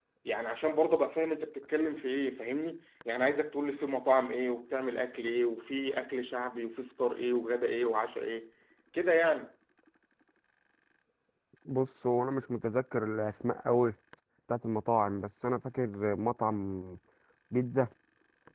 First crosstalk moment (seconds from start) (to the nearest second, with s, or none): none